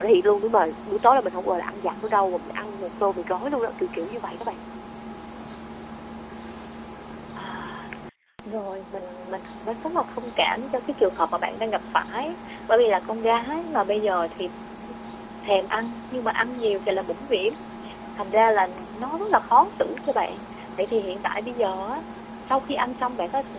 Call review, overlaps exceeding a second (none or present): none